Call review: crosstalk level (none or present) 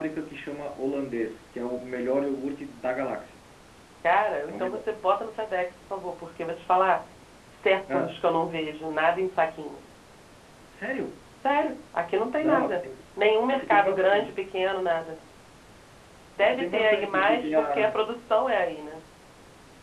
present